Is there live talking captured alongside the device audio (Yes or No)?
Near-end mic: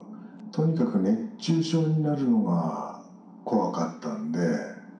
No